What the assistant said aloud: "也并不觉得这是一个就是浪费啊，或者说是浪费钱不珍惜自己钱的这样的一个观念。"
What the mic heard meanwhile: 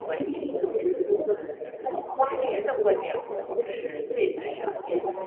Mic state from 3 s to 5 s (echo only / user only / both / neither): both